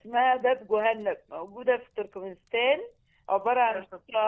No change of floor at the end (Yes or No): Yes